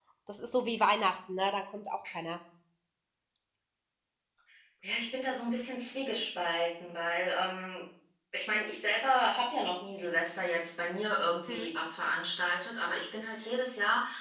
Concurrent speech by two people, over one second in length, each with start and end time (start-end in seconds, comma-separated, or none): none